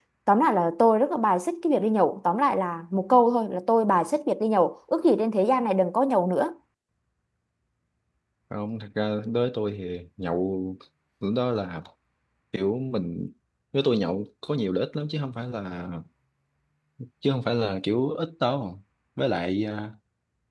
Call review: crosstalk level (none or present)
none